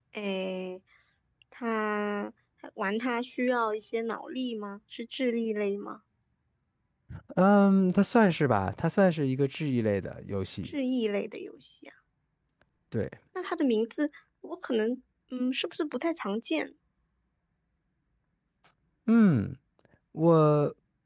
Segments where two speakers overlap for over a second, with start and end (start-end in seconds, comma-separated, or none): none